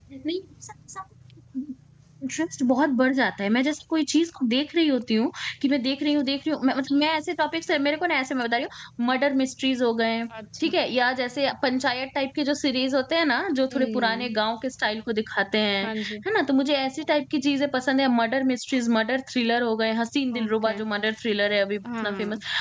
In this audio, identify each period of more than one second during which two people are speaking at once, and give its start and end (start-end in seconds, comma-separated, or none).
none